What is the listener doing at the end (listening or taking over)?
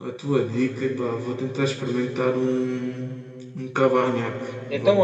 taking over